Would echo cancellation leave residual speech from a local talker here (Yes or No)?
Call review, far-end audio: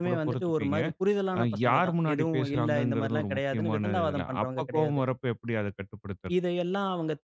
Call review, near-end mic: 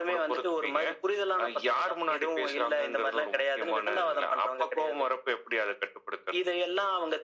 No